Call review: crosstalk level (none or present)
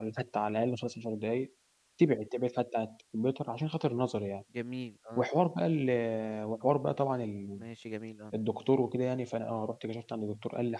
none